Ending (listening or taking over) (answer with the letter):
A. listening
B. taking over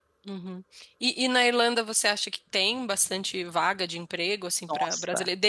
A